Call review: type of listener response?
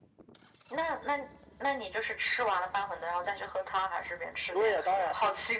taking over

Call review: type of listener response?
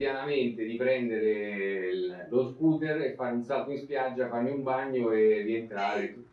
listening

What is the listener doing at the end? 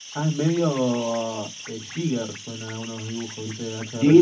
taking over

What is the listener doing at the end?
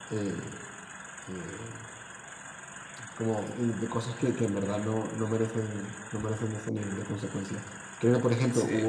listening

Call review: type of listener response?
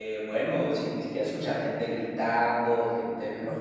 listening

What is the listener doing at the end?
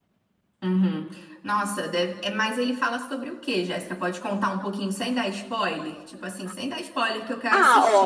taking over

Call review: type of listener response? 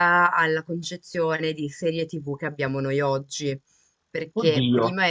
listening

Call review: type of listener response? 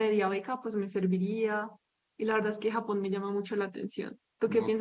taking over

